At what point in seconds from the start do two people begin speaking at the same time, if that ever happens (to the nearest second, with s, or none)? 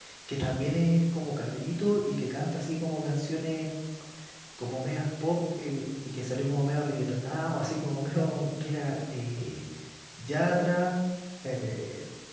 none